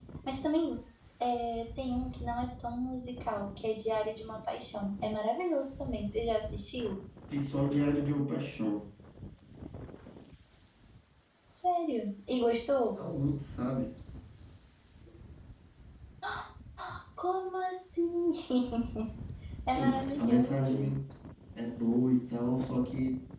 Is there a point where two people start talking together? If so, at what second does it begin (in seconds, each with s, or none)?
19.7 s